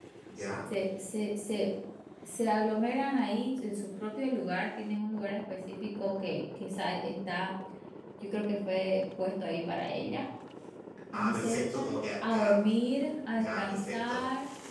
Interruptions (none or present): present